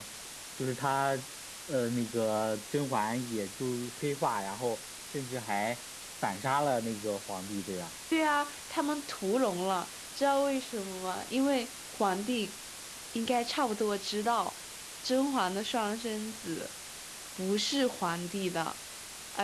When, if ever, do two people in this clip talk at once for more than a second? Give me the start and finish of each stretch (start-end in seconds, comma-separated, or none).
none